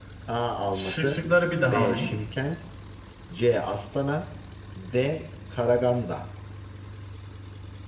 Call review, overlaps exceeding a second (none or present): none